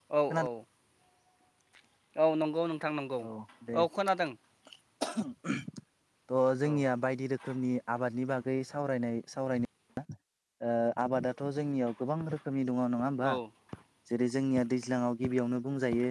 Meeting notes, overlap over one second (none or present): none